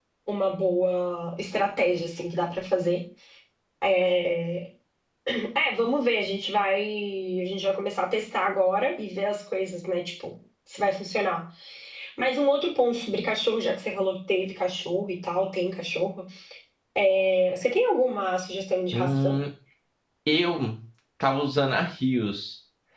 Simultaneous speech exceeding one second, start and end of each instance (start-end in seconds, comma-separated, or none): none